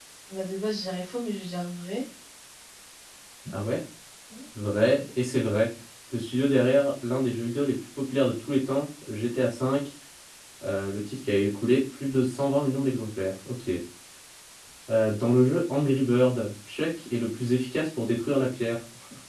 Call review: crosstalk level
none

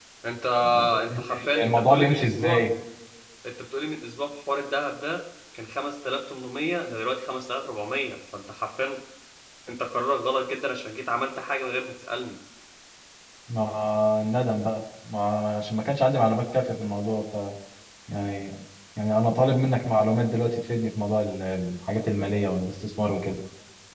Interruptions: present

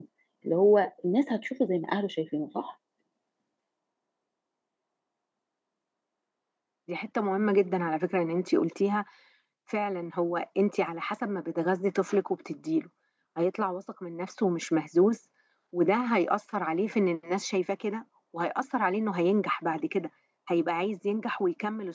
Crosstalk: none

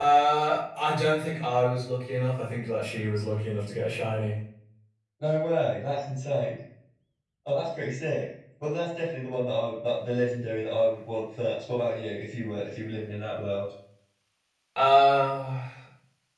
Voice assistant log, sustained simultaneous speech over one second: none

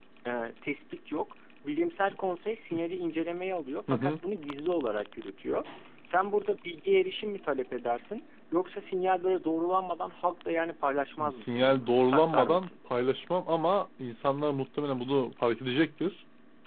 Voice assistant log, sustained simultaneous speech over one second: present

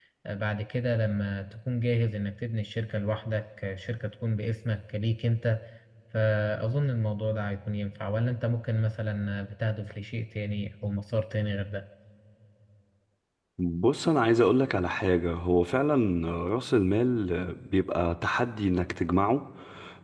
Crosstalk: none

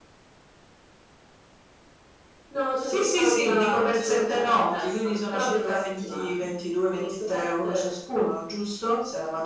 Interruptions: present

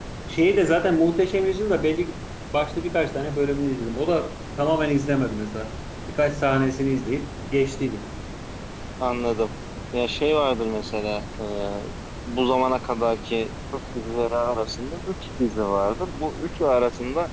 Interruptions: none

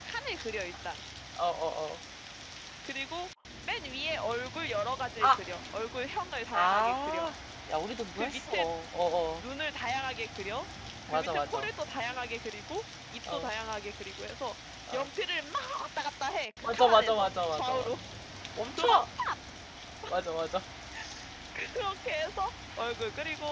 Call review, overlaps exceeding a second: present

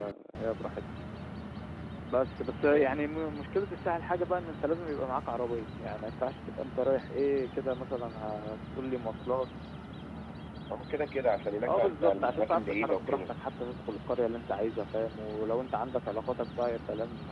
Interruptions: present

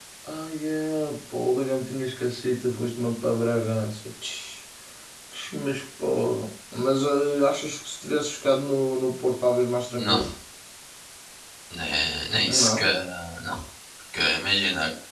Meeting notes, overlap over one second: none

